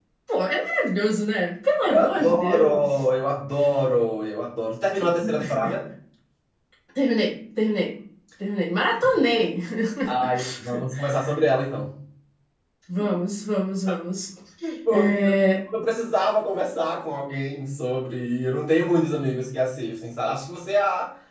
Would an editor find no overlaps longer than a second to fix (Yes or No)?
No